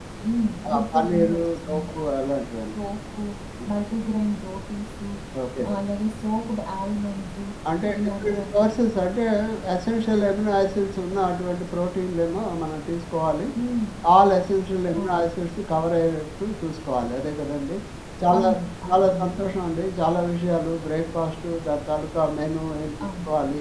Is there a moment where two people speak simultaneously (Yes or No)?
Yes